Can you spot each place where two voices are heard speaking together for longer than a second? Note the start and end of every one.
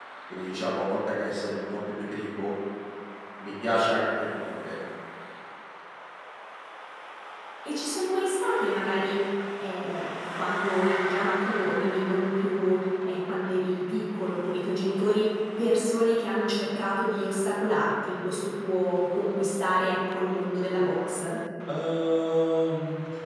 none

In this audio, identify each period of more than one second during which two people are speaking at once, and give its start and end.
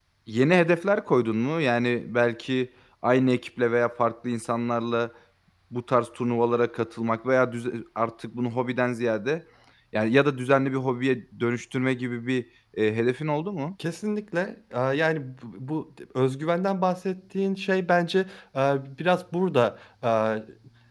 none

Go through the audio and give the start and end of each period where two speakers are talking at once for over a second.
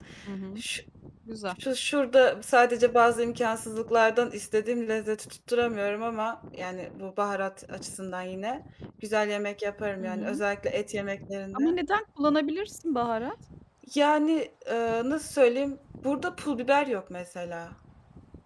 none

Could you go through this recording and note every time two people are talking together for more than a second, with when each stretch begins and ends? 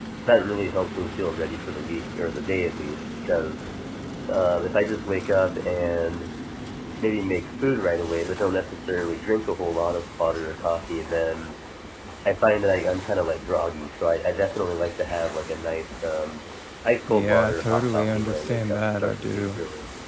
17.1-19.4

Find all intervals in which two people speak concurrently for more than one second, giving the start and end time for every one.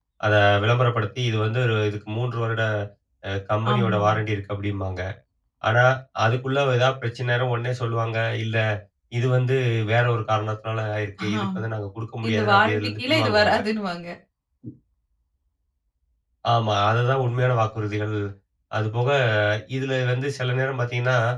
12.3-13.6

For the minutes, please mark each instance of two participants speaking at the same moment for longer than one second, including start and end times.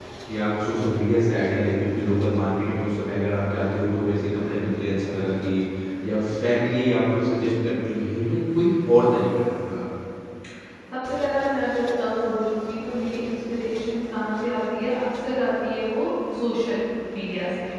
none

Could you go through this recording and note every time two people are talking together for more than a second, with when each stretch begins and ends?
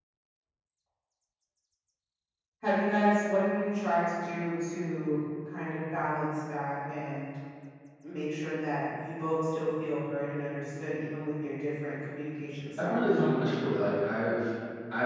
none

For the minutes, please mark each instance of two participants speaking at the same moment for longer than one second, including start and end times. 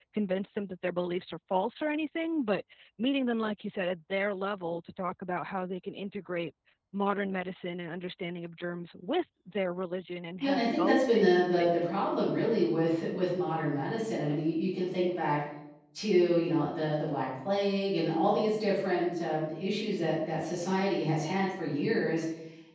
10.4-11.7

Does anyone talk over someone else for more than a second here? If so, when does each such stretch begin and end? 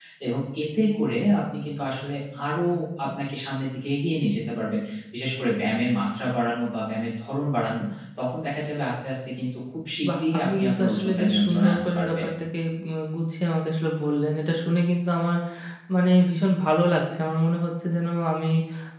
10.1-12.3

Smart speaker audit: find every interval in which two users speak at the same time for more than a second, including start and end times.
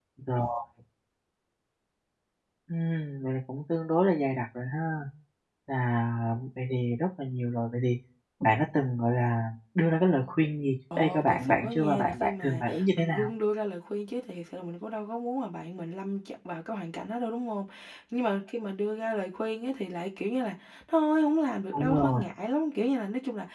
11.0-13.3

